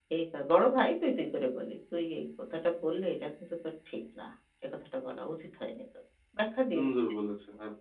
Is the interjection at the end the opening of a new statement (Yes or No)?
Yes